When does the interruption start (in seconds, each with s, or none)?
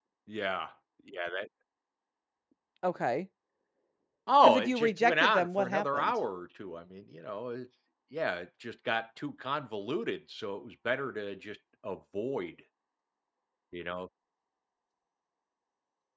4.4 s